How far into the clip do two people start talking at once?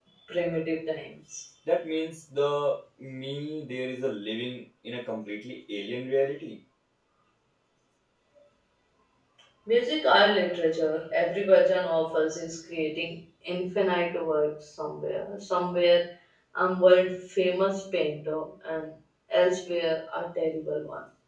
none

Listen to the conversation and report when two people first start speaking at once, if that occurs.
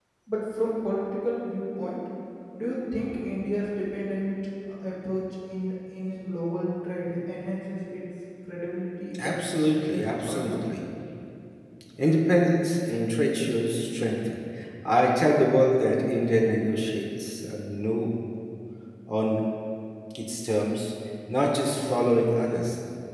9.1 s

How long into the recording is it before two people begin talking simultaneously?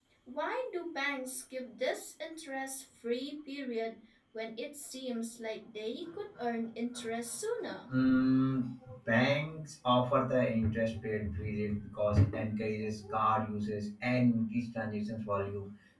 none

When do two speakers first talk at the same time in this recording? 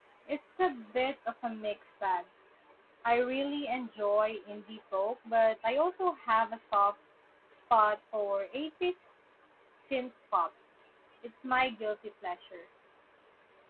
none

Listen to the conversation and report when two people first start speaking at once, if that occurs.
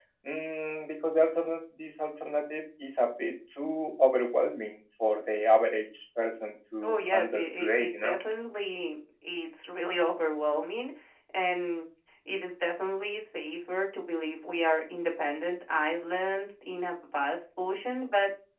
6.8 s

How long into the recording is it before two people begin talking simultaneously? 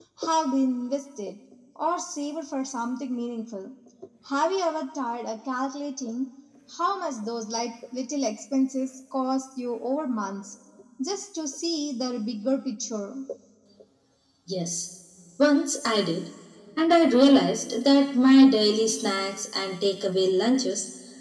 none

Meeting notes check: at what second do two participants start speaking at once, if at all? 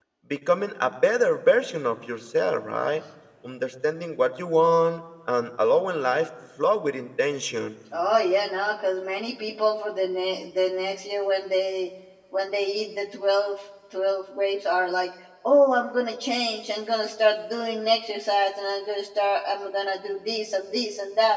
none

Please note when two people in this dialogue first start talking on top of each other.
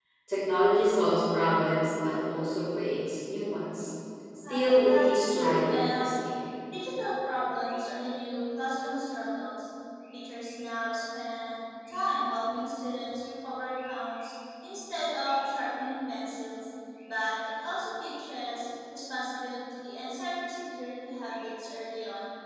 4.5 s

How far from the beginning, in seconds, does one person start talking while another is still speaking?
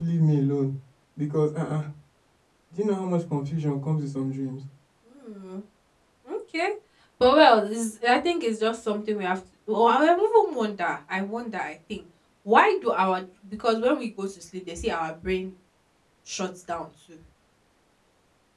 none

